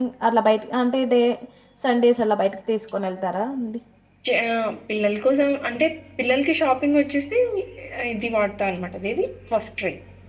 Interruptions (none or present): none